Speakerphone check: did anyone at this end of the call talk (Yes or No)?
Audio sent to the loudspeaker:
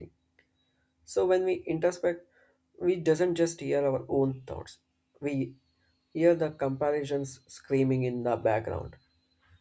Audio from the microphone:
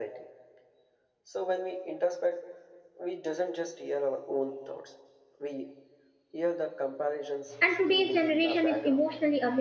Yes